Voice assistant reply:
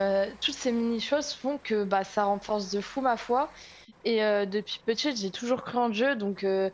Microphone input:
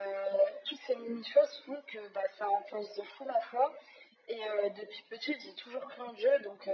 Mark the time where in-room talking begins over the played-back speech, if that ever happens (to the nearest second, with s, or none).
none